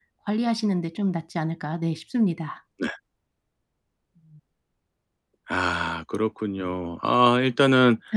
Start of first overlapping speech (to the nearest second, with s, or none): none